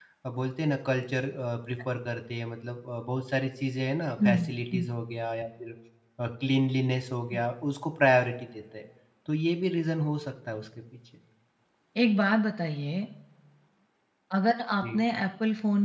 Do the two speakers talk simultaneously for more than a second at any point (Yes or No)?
No